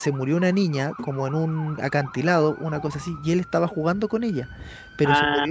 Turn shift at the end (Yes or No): No